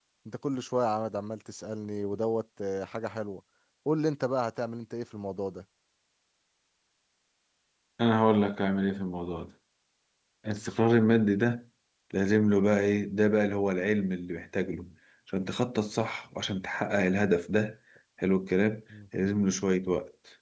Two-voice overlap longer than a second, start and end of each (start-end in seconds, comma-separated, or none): none